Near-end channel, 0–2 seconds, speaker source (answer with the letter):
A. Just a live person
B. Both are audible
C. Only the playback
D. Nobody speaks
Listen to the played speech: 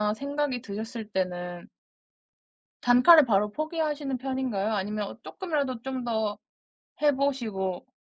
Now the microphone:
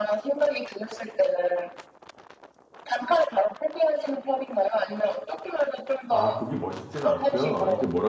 C